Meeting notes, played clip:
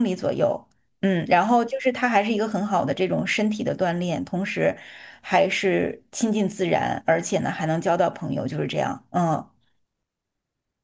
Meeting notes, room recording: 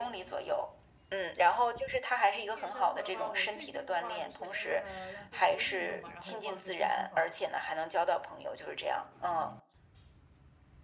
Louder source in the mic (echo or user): echo